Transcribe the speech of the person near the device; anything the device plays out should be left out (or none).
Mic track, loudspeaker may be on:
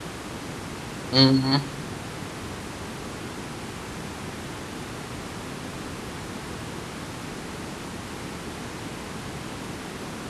Mhm.